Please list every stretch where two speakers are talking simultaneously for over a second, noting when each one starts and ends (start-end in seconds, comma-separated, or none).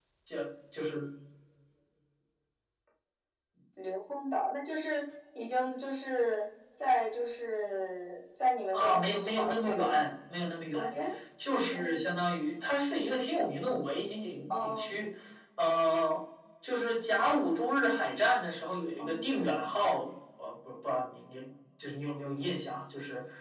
8.7-10.0